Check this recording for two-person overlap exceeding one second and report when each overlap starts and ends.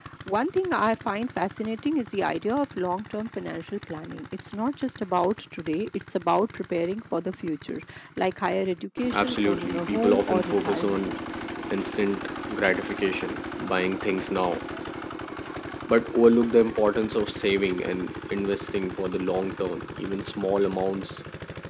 9.1-11.1

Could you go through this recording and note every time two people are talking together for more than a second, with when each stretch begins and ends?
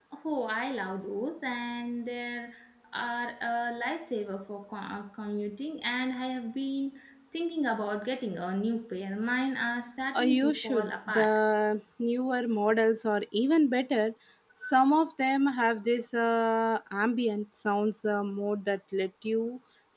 10.1-11.4

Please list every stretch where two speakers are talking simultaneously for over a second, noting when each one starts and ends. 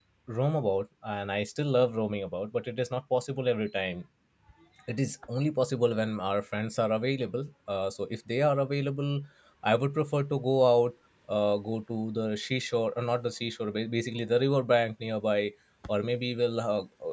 none

